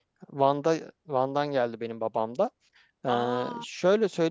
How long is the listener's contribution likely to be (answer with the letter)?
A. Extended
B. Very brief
B